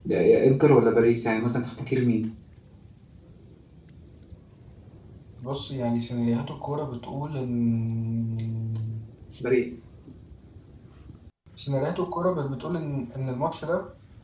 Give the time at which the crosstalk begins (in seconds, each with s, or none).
none